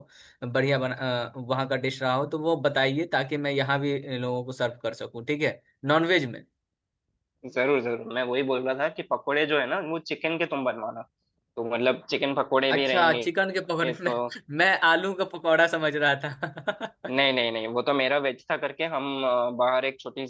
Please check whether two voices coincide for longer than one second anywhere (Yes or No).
No